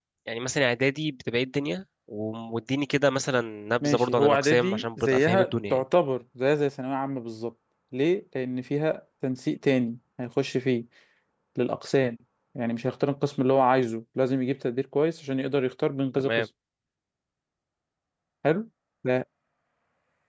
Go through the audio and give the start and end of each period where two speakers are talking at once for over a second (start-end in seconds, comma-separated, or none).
3.8-5.8